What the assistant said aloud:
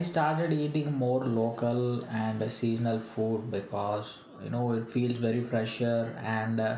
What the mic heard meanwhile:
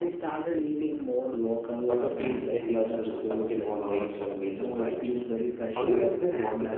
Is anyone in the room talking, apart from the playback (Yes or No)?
Yes